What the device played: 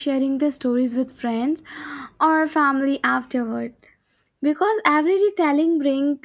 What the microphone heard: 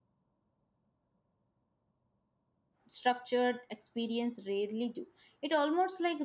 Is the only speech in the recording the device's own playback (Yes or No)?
No